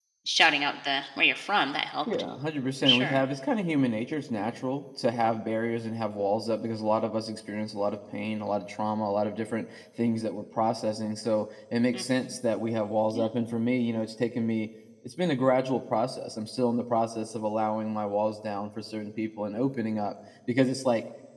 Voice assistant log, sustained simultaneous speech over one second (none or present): none